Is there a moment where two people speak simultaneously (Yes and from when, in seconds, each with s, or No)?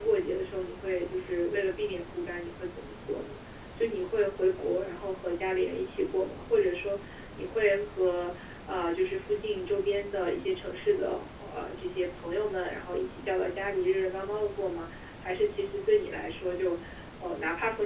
No